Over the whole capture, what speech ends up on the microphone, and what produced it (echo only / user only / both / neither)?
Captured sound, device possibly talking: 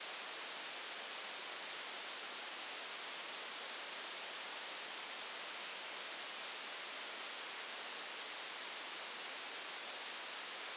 neither